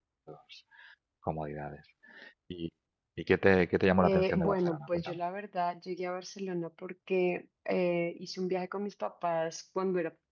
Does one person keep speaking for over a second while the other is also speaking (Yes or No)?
Yes